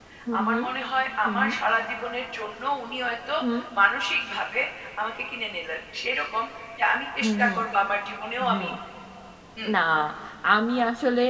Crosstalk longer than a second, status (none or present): none